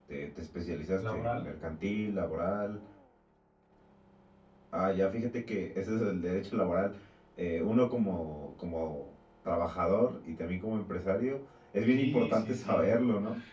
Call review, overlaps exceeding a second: present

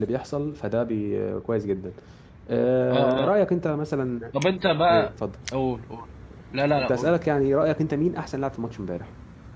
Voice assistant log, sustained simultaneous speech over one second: none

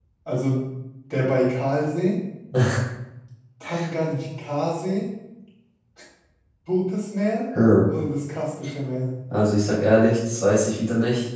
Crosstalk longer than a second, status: none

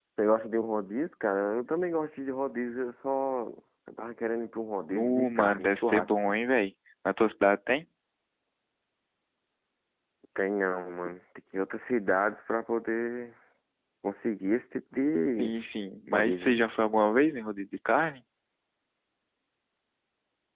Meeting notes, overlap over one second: present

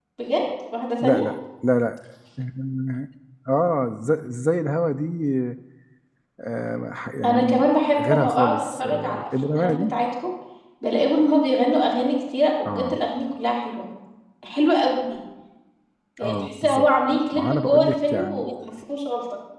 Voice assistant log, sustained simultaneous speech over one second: present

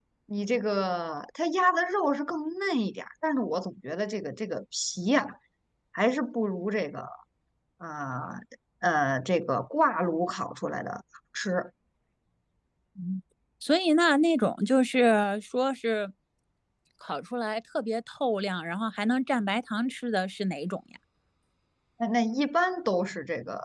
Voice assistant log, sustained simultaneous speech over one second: none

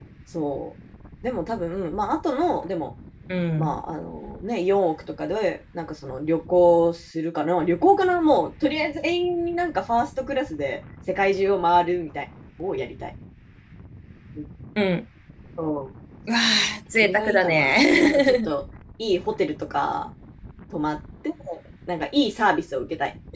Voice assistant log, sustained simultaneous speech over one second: present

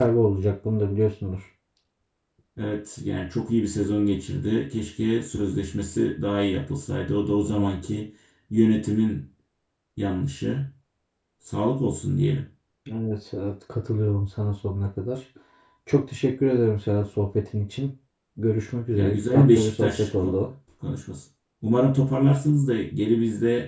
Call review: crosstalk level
present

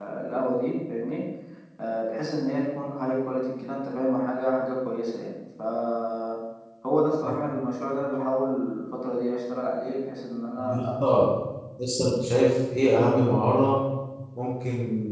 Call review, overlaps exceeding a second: none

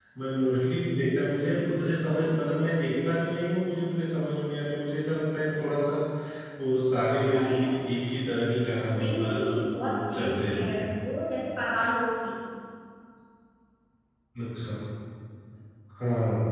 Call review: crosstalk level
present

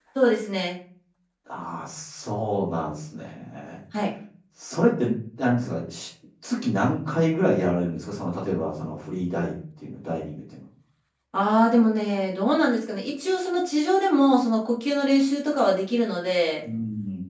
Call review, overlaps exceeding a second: none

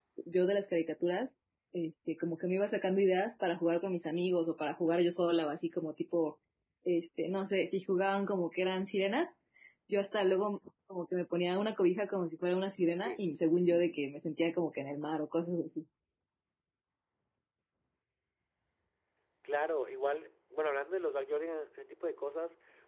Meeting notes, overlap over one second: none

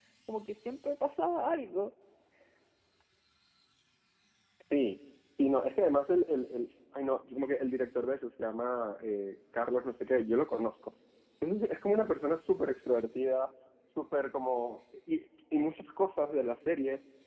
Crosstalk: none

